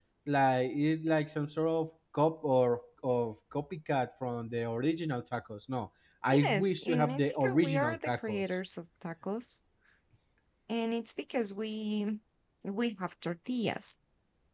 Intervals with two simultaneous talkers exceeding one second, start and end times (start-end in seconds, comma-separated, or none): 6.3-8.4